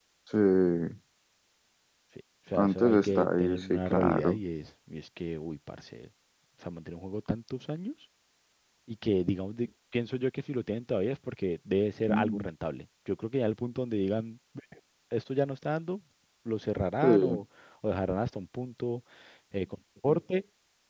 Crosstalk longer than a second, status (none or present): present